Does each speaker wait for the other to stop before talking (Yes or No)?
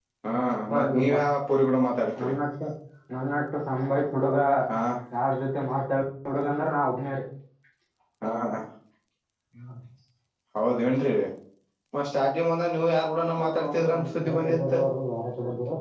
No